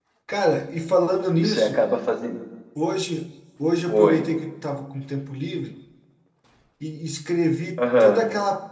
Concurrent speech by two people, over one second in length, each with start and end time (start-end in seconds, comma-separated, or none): none